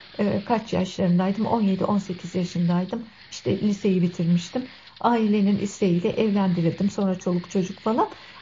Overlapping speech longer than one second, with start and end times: none

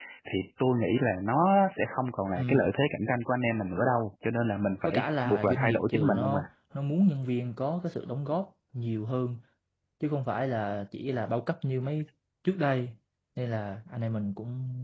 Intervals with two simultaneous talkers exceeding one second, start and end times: 4.8-6.4

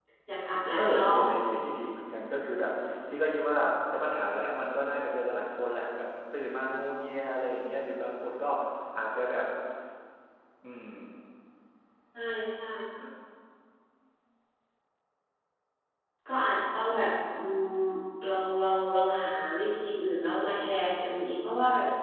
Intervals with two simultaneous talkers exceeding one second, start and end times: none

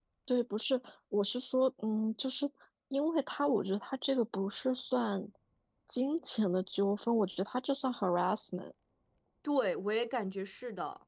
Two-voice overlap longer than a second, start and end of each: none

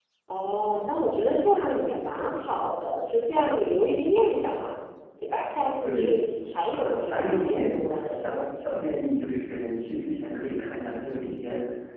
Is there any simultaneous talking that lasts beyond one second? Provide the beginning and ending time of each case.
6.7-8.2

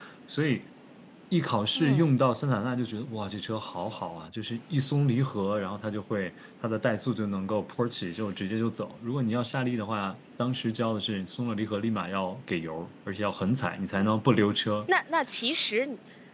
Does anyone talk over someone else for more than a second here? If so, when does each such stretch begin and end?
none

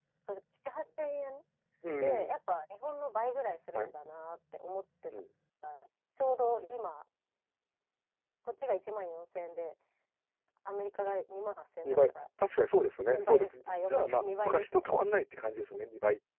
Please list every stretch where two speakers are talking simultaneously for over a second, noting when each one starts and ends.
13.1-14.9

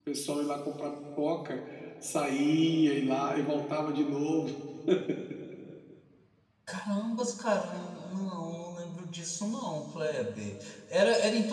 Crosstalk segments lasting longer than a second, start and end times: none

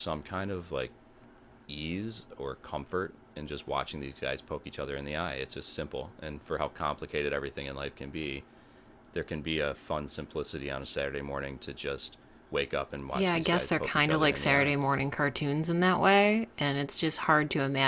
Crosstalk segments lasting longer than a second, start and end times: 13.1-14.7

